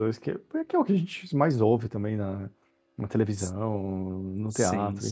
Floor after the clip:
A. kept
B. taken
A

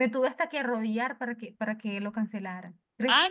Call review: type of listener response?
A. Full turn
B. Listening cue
A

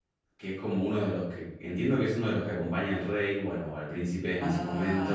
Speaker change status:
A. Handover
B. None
A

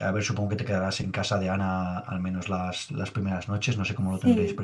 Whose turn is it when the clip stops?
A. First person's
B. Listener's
B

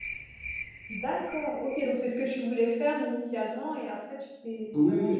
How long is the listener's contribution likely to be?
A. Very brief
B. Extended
B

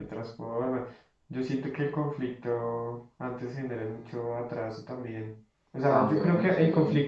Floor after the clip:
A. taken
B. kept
B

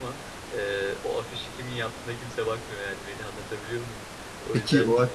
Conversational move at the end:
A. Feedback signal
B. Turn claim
B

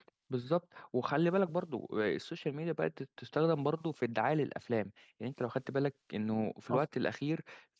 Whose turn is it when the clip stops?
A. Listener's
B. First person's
B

